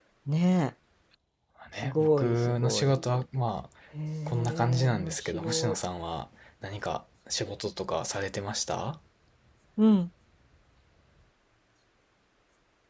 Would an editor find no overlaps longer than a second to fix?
No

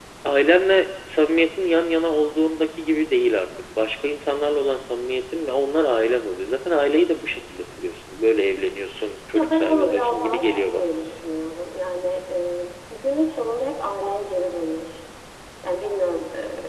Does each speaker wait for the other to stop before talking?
No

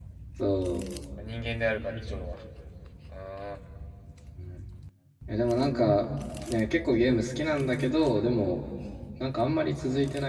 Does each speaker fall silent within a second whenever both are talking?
Yes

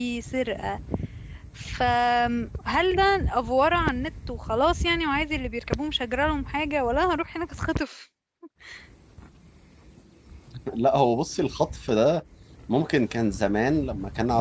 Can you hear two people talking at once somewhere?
No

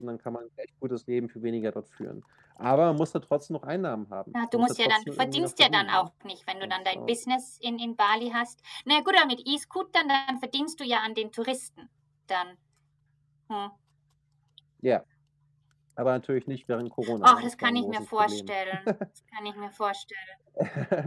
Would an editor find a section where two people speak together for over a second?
Yes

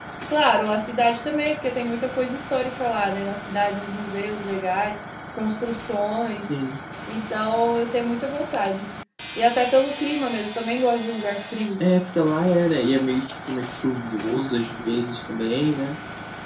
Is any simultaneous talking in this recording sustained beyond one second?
No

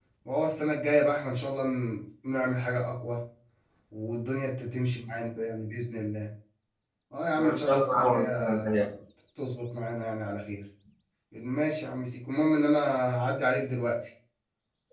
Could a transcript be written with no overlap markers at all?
No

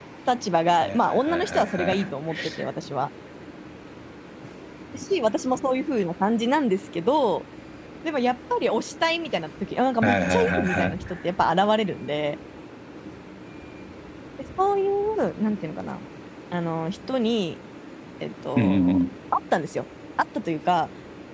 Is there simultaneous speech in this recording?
Yes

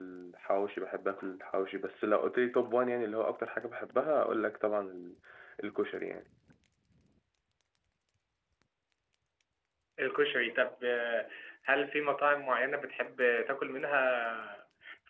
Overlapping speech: No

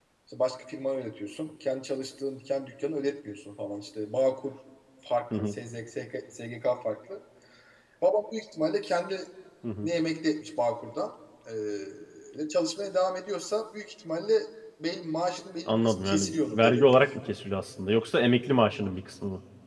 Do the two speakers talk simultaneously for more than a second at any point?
Yes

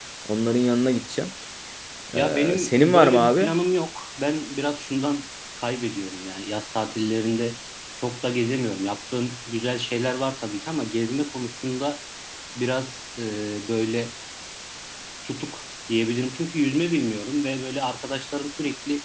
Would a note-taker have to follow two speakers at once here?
Yes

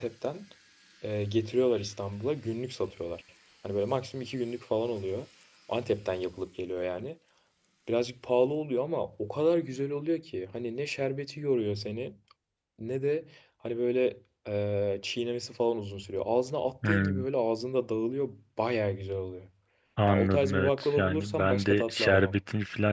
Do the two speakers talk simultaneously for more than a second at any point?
Yes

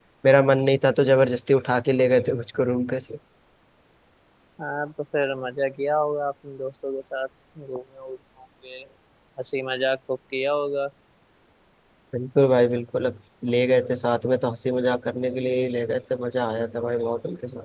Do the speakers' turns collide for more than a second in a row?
No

